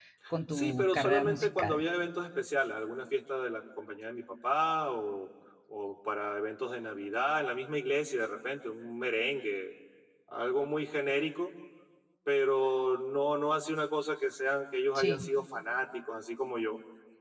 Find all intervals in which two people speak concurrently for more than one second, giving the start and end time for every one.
0.5-1.8

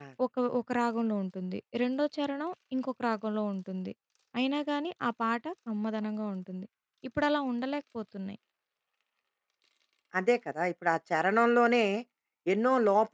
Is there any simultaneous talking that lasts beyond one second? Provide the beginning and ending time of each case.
none

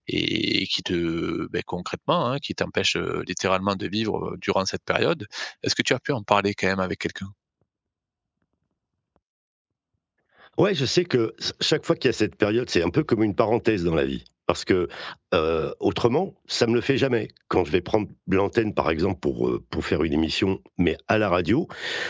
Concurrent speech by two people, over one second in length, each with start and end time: none

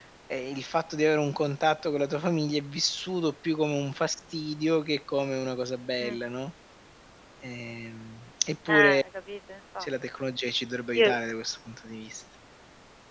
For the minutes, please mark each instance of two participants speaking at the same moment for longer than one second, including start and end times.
none

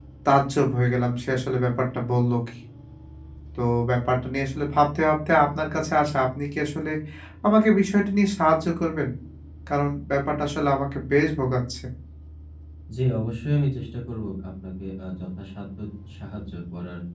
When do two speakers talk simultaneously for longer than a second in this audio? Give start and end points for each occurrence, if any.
none

